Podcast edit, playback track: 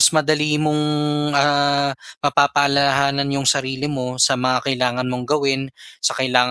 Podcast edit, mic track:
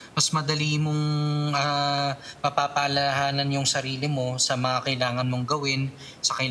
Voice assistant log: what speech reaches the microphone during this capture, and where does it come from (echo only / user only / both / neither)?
echo only